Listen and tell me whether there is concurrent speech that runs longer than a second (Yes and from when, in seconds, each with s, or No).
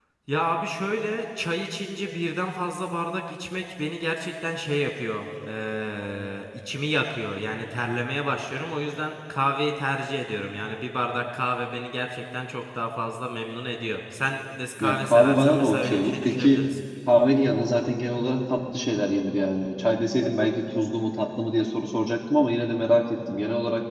Yes, from 14.8 s